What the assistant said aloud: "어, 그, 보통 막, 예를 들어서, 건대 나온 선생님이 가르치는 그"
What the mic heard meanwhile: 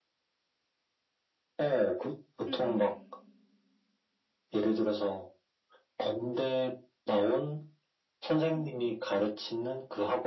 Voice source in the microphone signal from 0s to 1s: neither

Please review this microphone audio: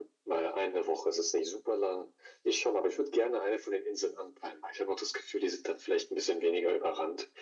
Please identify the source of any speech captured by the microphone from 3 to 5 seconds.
echo only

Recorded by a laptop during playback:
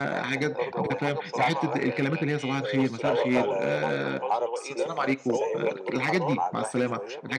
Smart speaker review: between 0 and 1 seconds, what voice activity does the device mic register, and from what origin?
both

